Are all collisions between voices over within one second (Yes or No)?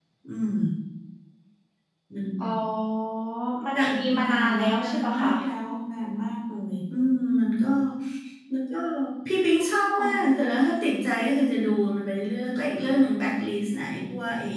No